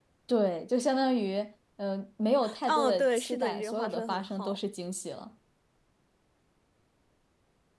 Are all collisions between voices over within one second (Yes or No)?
No